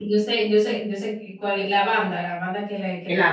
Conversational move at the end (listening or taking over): taking over